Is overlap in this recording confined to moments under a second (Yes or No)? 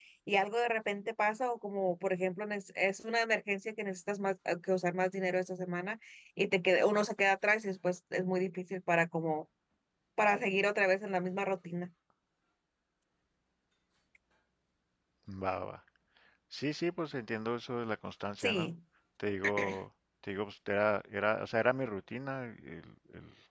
Yes